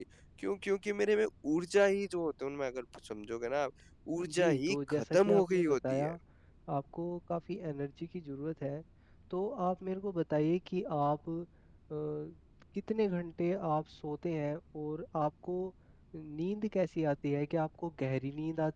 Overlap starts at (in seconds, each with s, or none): 4.3 s